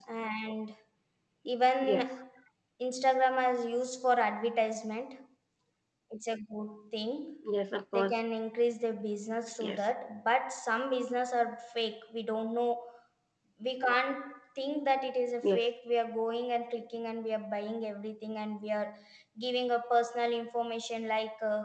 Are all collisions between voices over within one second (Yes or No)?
Yes